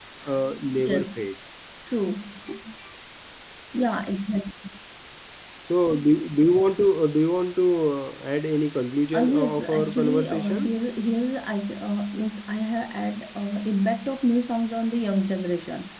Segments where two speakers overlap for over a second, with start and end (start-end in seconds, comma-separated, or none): 9.1-10.7